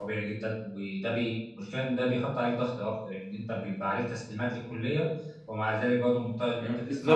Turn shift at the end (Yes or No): Yes